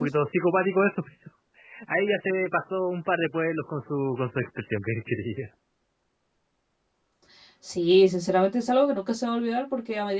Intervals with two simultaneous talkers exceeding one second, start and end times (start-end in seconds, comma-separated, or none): none